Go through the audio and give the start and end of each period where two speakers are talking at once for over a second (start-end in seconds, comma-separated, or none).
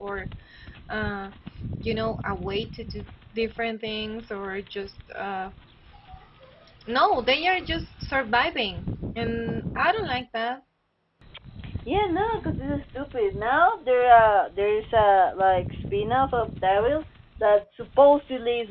none